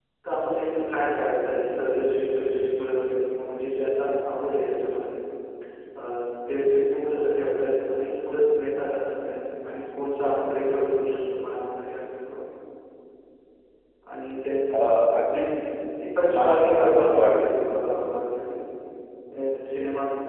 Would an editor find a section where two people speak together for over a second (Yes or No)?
Yes